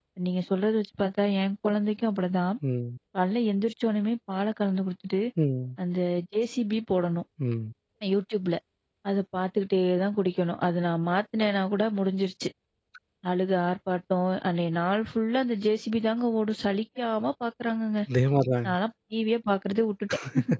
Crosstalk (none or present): none